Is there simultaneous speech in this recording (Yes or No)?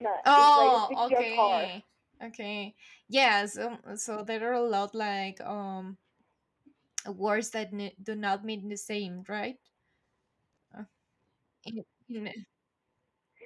Yes